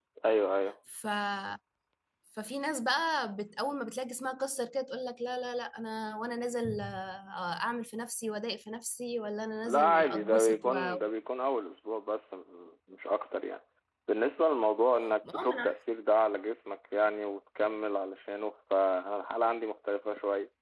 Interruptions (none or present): present